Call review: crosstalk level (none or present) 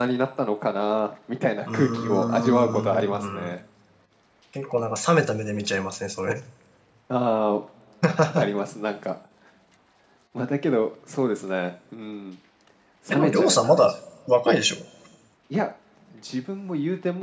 present